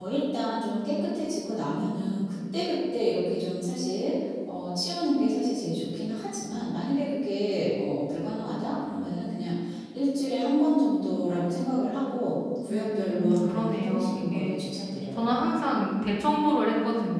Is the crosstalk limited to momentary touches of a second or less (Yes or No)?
No